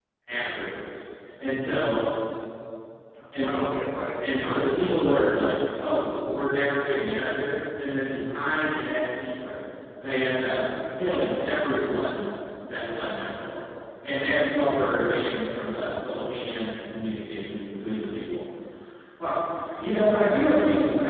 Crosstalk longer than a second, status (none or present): present